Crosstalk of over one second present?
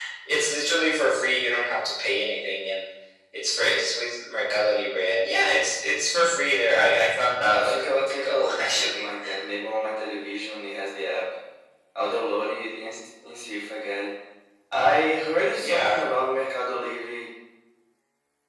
Yes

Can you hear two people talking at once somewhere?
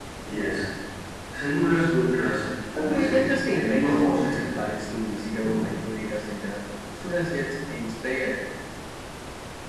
Yes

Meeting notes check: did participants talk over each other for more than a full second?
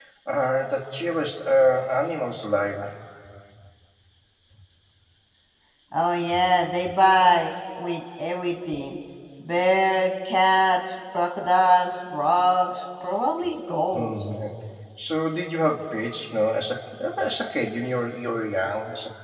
No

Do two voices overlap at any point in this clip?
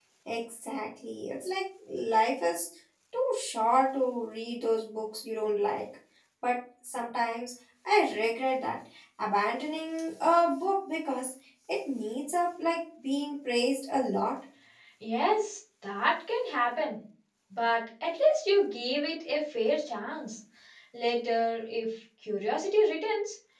No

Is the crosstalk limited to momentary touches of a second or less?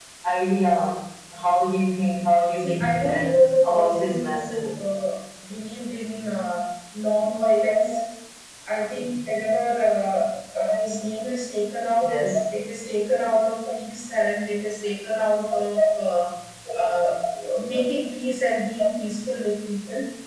No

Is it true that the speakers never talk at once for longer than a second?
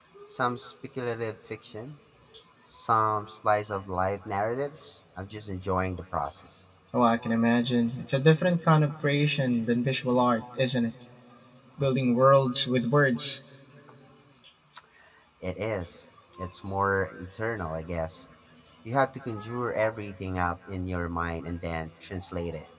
Yes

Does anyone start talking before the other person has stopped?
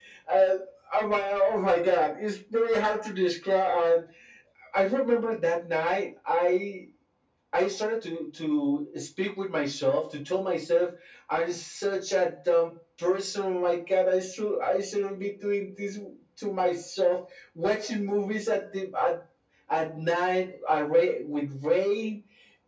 No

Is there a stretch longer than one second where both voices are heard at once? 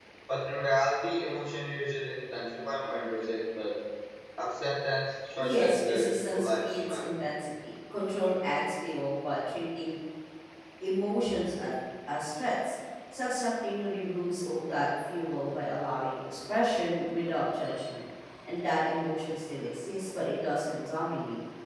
Yes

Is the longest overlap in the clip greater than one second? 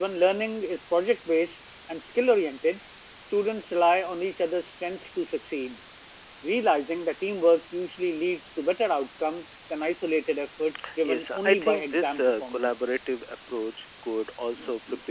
Yes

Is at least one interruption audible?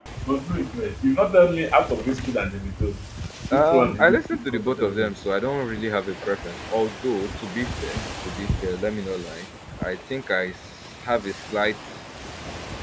Yes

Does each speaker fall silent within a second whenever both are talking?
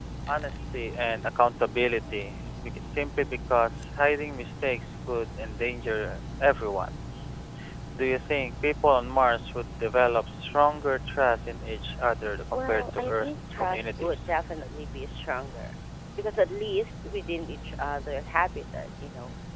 No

